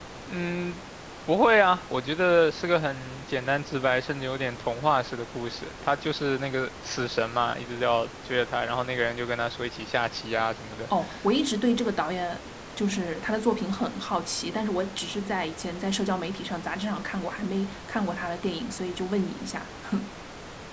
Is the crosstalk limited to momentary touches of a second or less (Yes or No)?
Yes